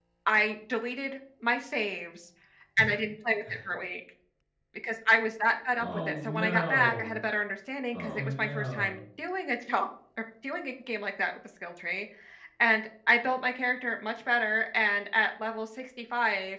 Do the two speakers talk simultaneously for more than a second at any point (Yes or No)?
Yes